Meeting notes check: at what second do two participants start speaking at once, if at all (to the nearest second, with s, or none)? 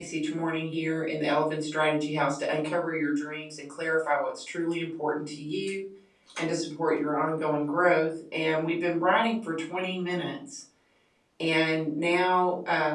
none